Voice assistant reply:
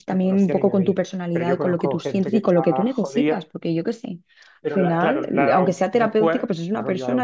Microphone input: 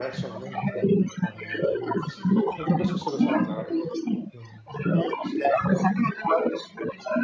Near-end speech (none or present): present